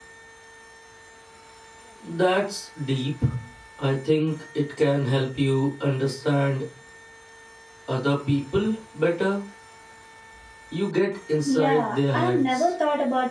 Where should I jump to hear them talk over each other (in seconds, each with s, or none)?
11.4 s